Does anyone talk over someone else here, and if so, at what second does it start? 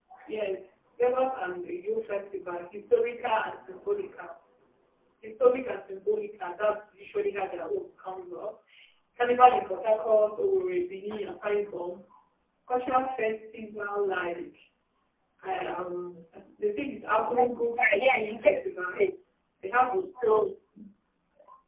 17 s

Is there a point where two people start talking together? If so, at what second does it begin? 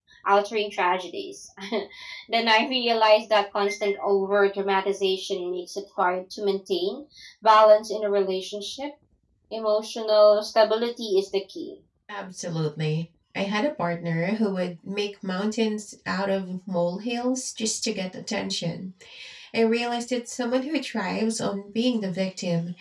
none

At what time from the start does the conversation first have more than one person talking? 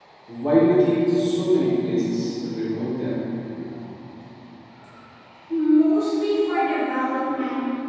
none

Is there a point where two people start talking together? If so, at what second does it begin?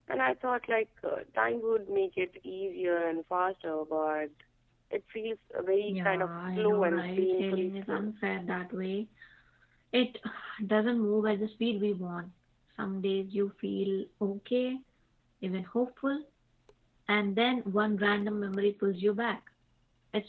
6 s

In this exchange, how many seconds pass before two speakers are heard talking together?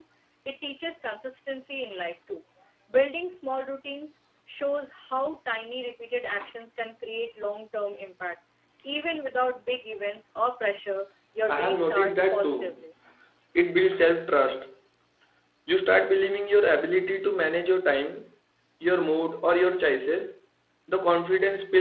11 s

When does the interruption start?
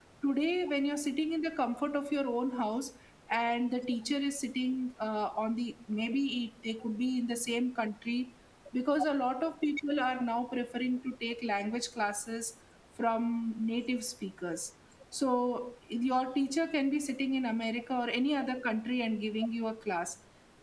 none

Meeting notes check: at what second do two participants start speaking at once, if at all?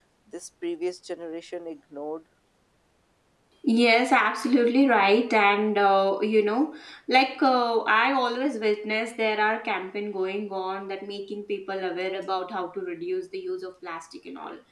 none

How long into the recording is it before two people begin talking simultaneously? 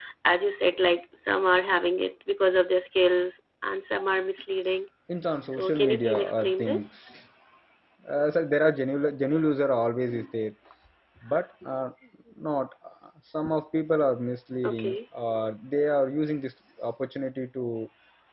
5 s

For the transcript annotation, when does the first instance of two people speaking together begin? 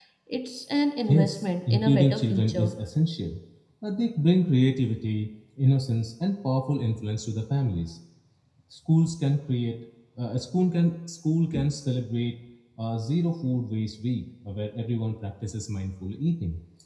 1 s

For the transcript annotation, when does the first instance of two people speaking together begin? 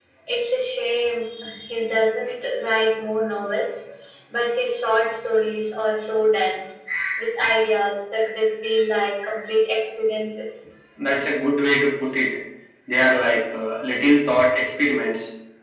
none

